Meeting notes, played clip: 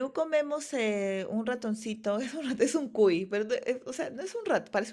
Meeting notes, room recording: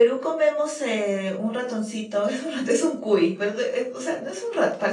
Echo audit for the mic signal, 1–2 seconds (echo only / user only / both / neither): echo only